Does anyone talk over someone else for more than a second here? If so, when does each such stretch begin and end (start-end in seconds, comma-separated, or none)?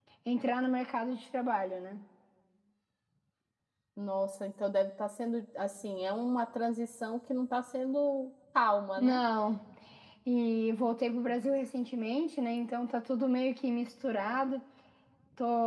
none